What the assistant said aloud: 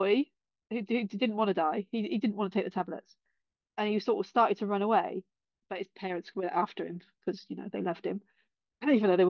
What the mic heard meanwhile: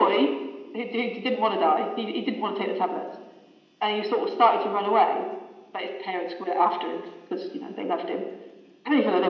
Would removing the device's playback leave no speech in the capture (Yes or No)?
Yes